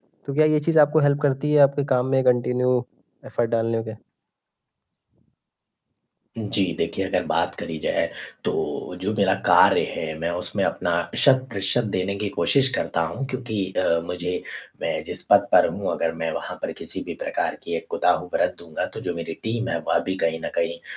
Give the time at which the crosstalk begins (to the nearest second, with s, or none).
none